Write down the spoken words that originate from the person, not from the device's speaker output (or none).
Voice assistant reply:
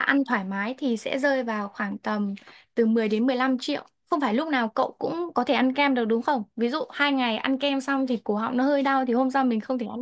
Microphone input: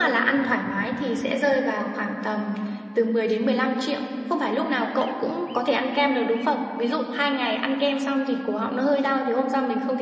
none